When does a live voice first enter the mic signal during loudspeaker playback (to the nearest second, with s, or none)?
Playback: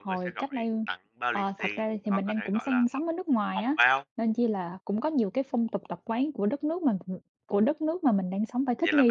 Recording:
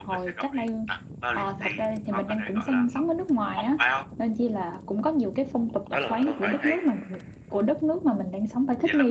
6 s